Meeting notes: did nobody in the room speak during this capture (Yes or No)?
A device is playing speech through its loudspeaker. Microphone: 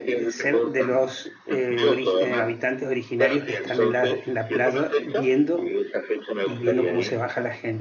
No